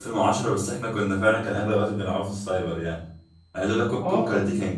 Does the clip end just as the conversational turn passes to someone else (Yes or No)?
No